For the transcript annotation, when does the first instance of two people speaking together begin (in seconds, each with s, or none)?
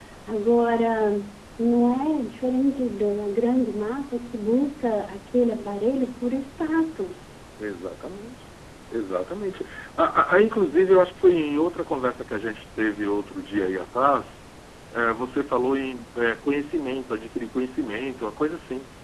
none